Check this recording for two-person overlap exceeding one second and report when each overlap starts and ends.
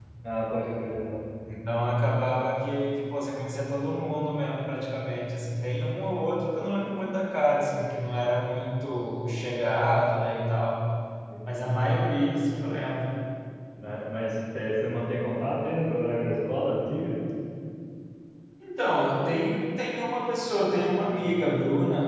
none

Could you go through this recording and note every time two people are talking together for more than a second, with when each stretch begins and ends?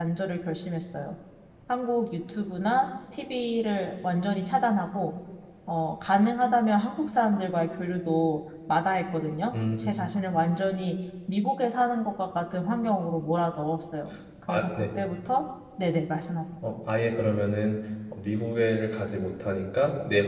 none

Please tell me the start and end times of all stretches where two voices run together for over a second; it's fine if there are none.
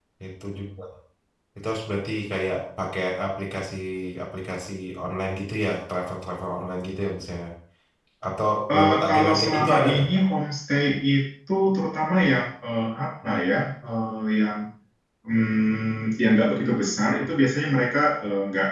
8.8-10.1

